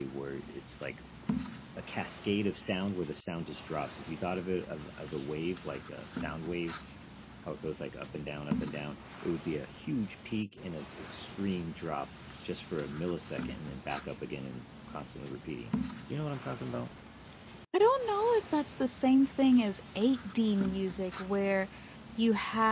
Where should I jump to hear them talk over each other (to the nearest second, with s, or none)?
none